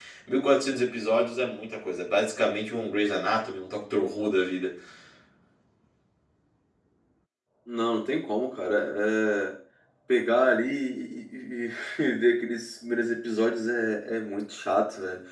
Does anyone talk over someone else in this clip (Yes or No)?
No